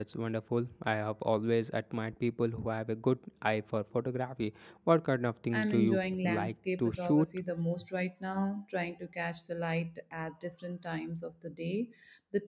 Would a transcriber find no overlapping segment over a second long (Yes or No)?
No